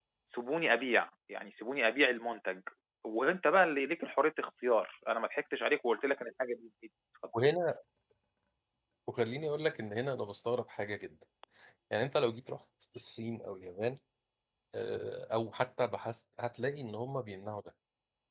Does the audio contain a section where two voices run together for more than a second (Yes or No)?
No